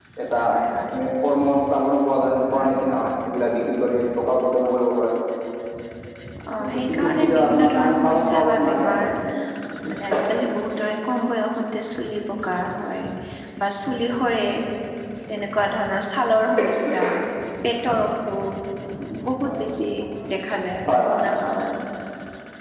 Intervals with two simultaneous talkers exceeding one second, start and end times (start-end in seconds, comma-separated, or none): 6.6-9.1